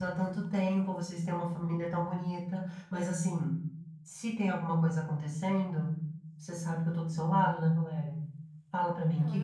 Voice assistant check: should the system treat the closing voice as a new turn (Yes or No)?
Yes